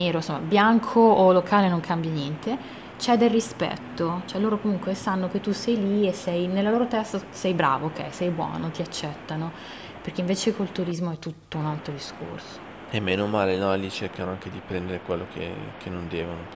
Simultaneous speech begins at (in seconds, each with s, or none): none